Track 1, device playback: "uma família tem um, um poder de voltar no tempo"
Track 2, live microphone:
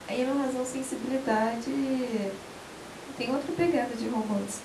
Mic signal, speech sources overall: user only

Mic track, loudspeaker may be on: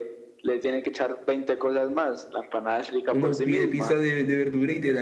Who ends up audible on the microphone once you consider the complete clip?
both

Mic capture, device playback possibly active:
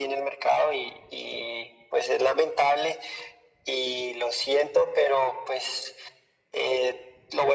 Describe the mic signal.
echo only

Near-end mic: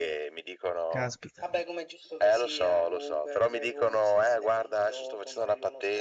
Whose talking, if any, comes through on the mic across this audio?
both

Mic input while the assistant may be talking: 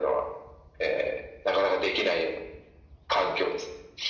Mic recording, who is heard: echo only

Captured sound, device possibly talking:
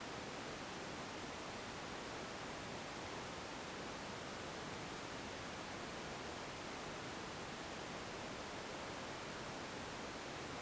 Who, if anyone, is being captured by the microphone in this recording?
neither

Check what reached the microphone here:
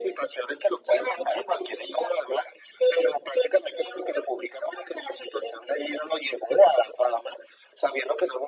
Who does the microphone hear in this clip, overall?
echo only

